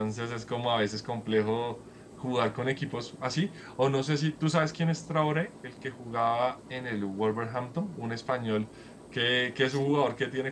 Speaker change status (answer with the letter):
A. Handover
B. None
B